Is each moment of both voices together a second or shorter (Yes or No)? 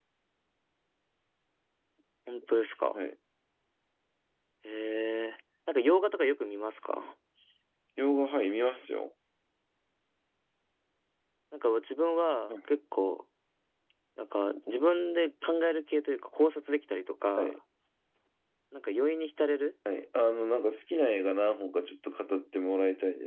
Yes